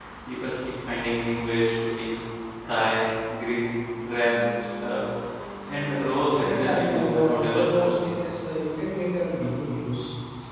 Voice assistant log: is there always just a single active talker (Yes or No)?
No